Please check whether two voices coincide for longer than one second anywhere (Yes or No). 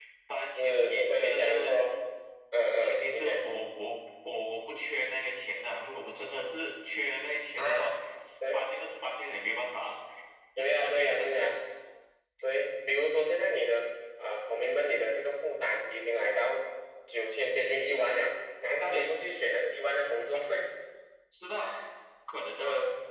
Yes